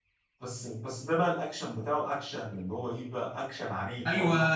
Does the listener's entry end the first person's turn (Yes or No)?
Yes